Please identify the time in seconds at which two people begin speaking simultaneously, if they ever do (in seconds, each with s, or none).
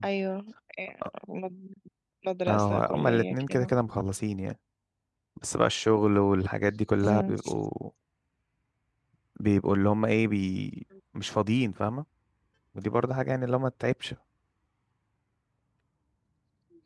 2.5 s